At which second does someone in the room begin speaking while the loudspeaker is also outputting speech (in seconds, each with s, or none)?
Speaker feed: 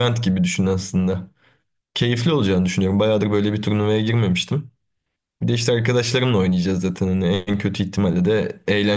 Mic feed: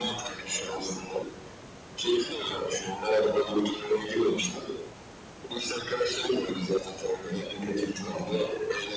none